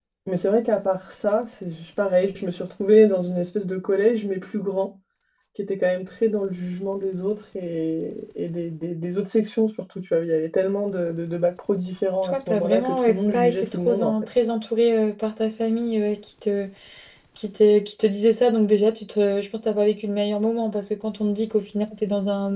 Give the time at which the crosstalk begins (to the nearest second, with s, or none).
12 s